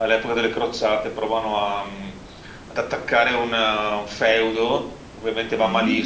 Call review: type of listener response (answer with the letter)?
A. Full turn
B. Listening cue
B